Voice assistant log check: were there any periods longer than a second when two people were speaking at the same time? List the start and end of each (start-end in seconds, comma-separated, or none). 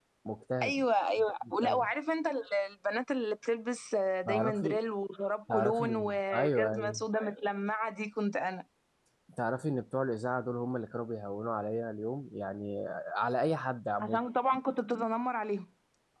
5.5-7.0